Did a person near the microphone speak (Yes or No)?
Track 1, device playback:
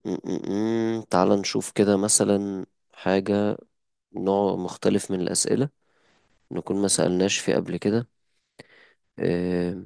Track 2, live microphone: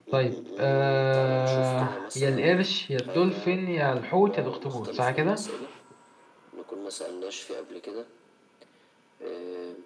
Yes